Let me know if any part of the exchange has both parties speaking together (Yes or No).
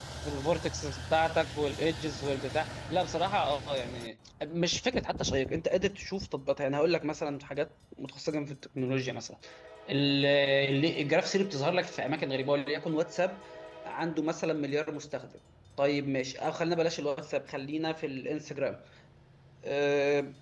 No